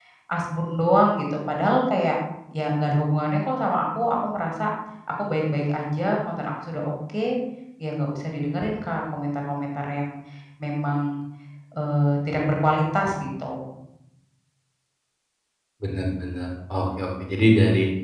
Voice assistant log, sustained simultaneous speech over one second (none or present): none